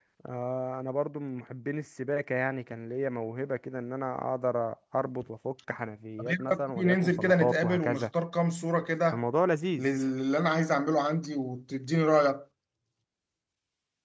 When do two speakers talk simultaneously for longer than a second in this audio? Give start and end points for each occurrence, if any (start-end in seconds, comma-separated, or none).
6.2-8.1